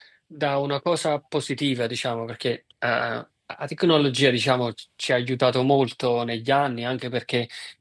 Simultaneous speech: No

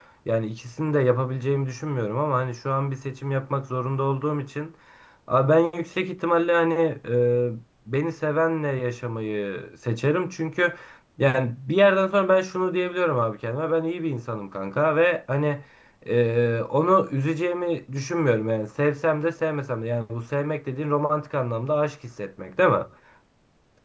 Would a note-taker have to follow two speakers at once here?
No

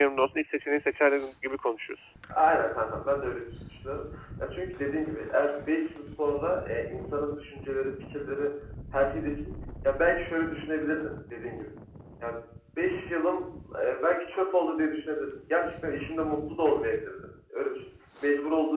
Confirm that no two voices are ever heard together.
Yes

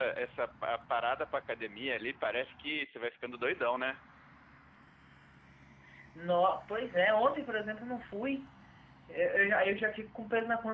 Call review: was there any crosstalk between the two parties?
No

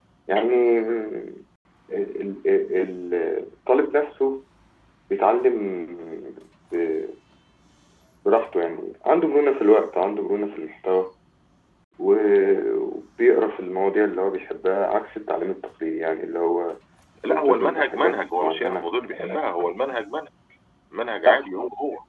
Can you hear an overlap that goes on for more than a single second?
Yes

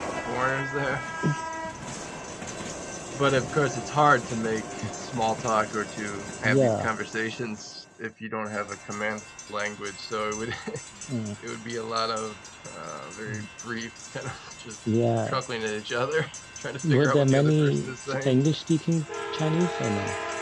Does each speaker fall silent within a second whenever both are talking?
No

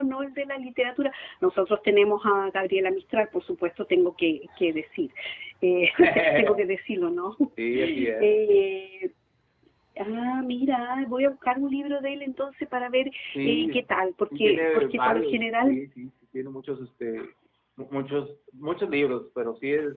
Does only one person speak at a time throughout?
No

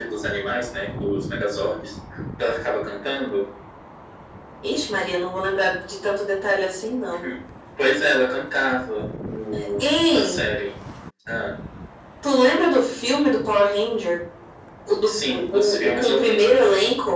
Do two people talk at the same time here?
Yes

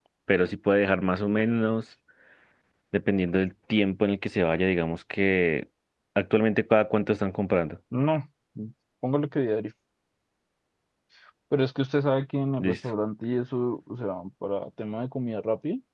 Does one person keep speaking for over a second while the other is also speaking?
No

